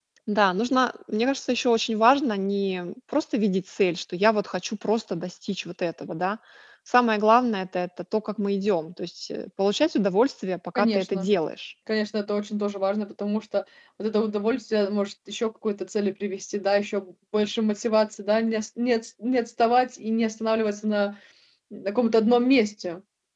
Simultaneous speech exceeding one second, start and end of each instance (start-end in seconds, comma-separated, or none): none